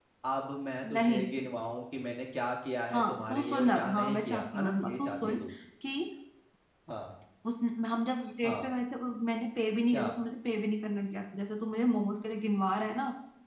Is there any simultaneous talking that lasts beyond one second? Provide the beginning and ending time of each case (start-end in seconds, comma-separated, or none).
2.9-5.4